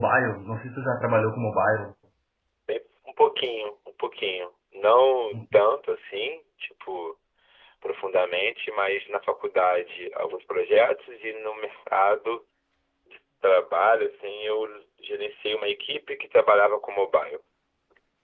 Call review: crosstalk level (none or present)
none